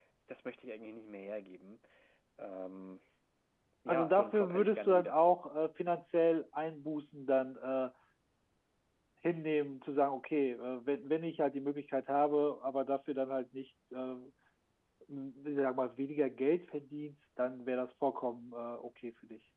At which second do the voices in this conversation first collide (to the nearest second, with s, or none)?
4 s